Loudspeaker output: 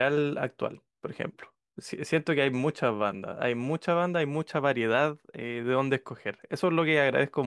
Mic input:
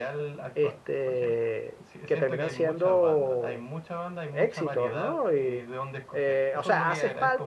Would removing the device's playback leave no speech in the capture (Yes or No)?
No